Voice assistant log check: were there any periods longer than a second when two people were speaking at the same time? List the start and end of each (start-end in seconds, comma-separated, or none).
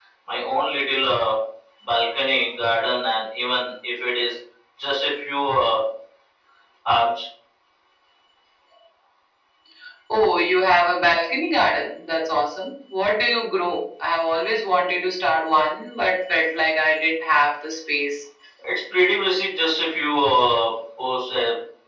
none